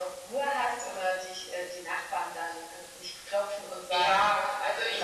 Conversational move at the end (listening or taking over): taking over